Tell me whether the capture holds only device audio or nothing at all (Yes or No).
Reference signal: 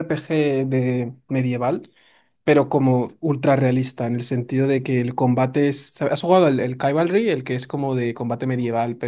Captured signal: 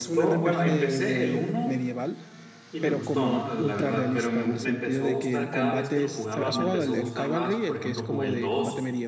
No